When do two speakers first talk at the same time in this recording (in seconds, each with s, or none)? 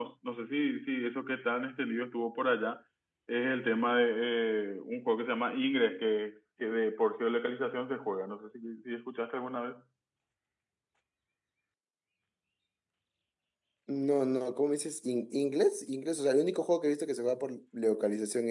none